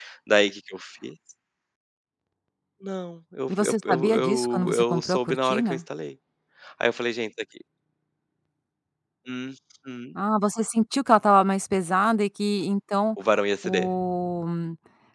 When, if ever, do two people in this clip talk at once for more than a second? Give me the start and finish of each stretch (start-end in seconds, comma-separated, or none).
3.5-5.8